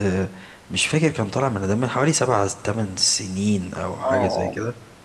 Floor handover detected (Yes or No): Yes